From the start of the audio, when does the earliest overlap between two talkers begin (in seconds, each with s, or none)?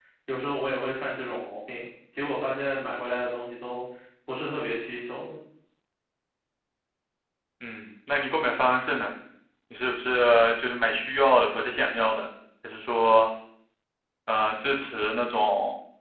none